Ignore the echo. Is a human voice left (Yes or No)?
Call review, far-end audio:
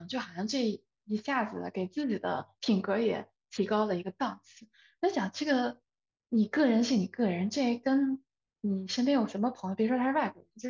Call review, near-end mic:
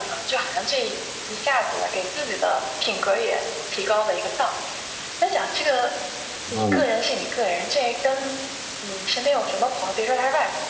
Yes